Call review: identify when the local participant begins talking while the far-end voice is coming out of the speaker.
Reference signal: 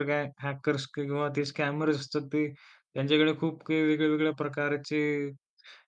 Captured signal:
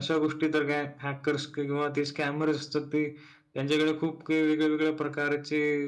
none

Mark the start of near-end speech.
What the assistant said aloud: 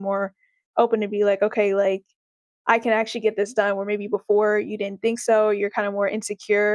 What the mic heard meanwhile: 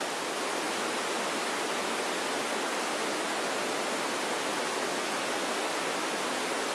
none

